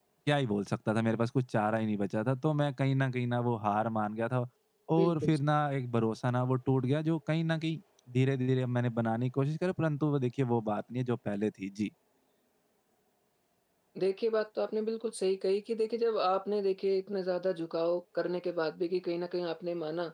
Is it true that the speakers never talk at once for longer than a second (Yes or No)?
Yes